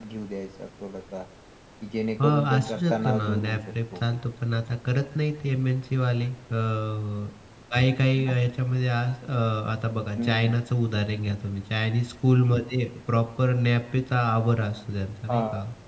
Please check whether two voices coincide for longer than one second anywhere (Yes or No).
Yes